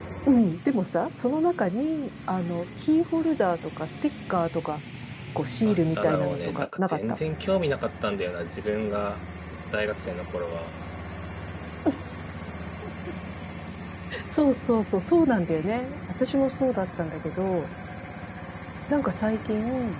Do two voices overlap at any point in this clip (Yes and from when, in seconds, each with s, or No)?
Yes, from 5.6 s